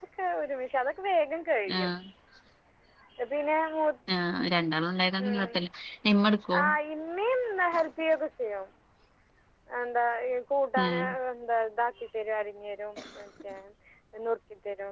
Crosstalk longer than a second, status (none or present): none